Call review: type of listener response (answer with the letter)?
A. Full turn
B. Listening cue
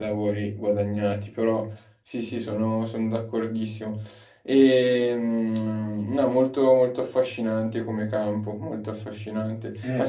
B